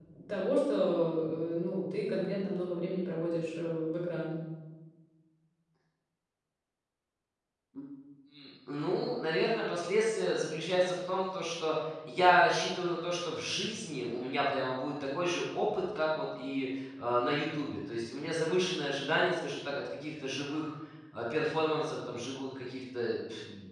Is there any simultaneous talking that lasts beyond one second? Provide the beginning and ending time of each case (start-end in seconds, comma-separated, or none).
none